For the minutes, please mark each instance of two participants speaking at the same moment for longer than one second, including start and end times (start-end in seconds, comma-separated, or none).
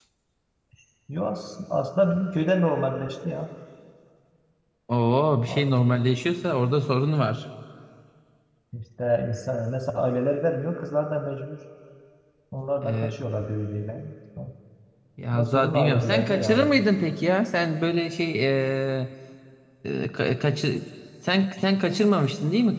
15.3-16.8